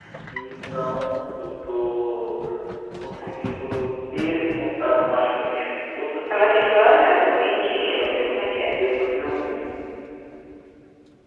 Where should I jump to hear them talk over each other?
6.3 s

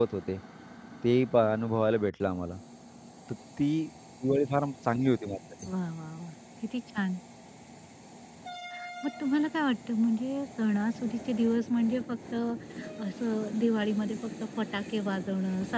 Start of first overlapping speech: none

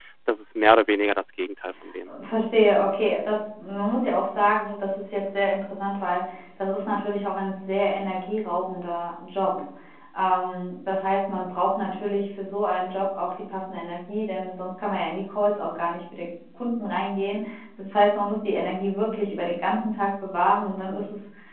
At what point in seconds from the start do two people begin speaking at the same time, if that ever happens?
none

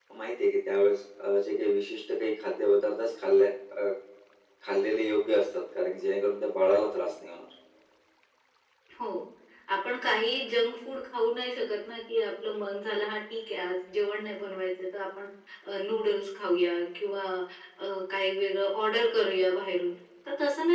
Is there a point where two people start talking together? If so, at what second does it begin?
none

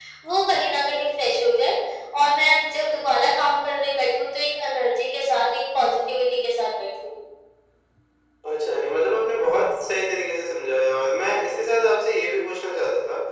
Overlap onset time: none

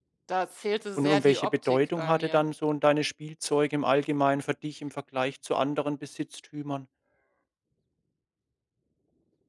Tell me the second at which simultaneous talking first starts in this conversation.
1.0 s

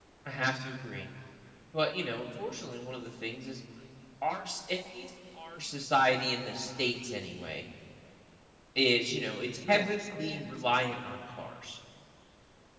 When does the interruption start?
9.6 s

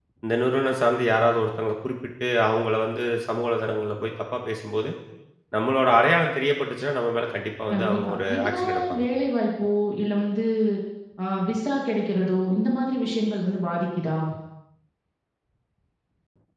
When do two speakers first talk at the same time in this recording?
7.7 s

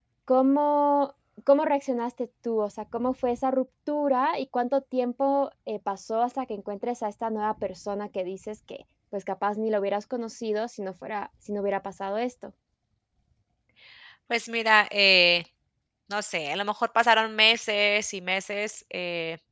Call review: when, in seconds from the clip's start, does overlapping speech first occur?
none

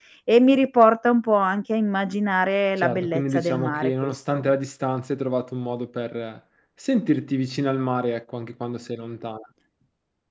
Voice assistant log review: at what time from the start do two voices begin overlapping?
2.8 s

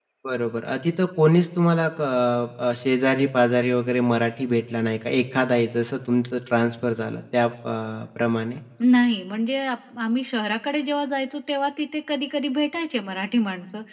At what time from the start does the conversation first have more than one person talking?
none

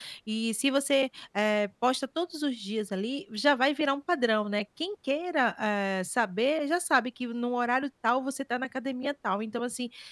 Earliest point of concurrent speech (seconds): none

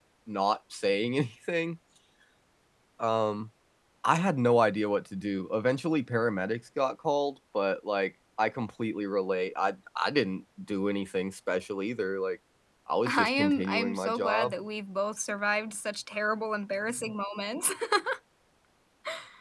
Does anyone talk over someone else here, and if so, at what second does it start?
13.1 s

